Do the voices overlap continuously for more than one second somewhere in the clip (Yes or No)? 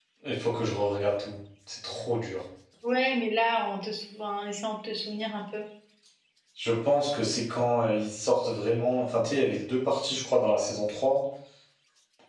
No